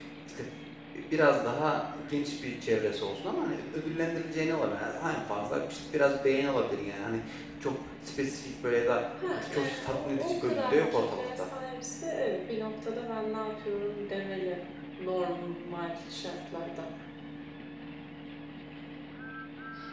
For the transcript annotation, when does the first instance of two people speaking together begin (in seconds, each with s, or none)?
9.5 s